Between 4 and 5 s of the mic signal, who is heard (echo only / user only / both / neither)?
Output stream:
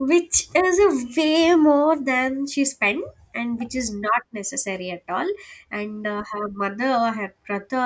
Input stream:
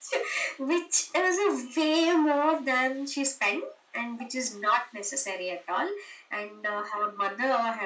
echo only